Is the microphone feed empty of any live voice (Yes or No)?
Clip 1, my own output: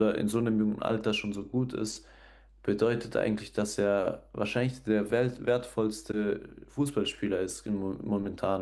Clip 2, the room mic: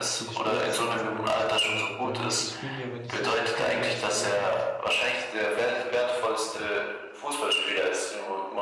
No